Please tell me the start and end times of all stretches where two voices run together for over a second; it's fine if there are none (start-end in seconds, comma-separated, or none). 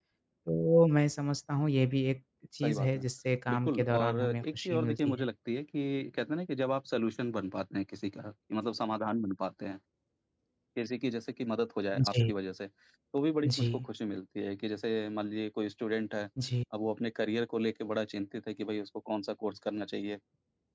3.5-5.2